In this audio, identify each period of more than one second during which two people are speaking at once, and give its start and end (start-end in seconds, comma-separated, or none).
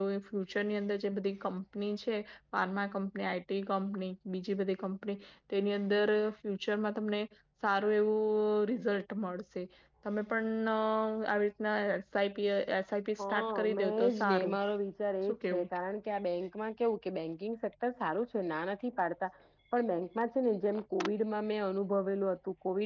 13.2-14.6